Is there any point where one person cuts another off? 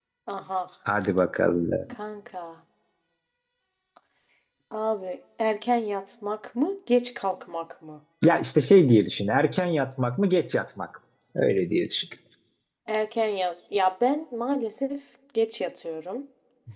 No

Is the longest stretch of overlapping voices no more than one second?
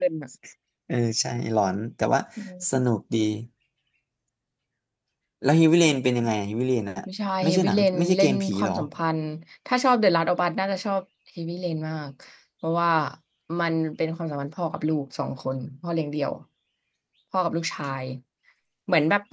No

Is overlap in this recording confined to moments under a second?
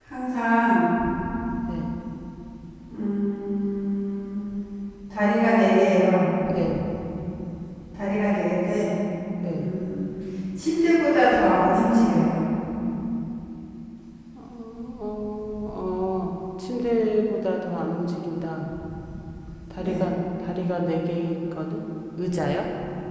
Yes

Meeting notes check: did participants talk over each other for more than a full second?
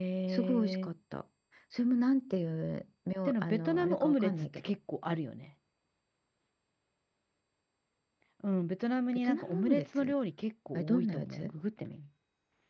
Yes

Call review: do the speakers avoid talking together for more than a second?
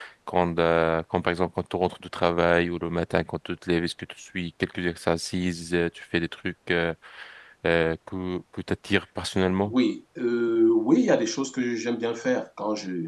Yes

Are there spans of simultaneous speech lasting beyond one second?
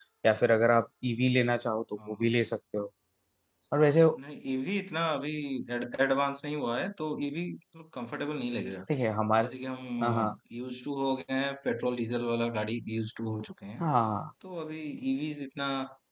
No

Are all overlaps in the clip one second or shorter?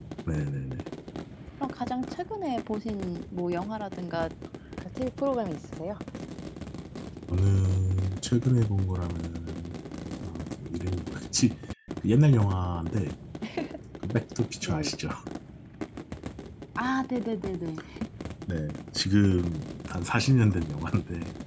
Yes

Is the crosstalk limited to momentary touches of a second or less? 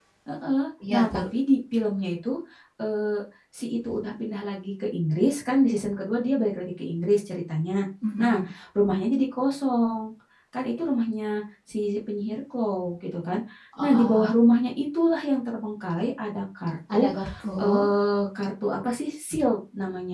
Yes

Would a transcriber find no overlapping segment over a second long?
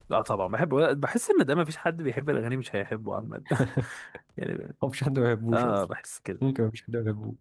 Yes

